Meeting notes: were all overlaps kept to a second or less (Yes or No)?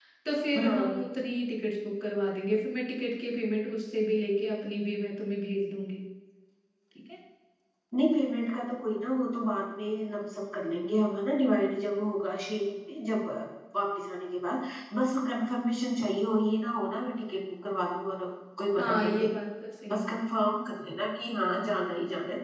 Yes